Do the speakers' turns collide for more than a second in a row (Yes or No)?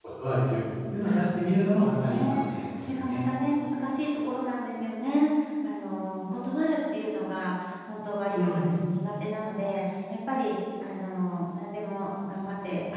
Yes